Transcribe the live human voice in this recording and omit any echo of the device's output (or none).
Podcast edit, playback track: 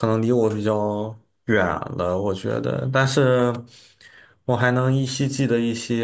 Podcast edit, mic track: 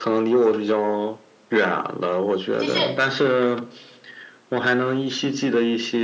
就是